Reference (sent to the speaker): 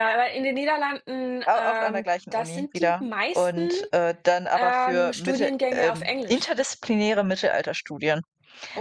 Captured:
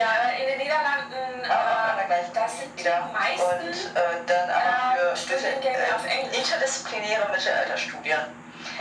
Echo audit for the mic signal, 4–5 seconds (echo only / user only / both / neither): echo only